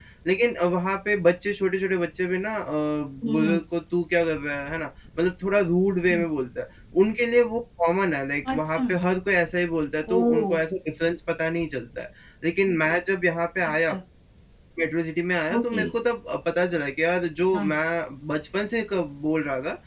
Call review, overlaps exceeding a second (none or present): none